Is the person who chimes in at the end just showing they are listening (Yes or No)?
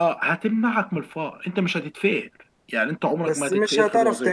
No